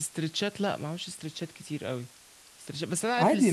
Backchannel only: Yes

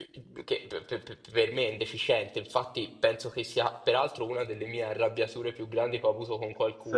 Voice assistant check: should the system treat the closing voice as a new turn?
No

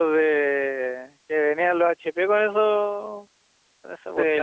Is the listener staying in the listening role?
No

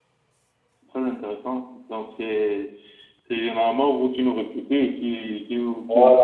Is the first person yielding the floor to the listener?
Yes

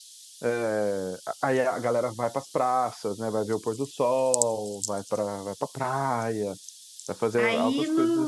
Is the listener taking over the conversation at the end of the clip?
Yes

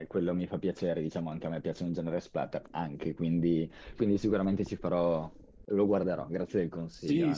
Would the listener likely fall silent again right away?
No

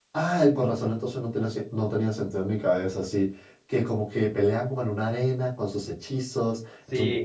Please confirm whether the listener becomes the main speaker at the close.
Yes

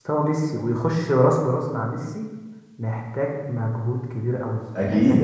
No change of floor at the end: Yes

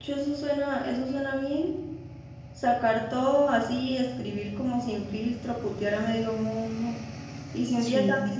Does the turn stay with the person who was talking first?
Yes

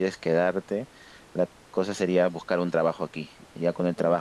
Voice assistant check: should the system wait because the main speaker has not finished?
Yes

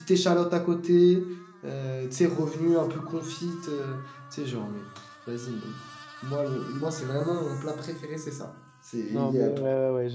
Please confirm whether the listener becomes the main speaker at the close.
Yes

